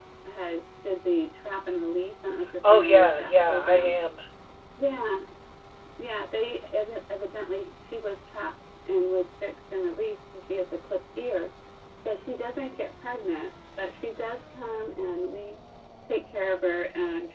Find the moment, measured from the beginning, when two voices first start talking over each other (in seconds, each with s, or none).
2.7 s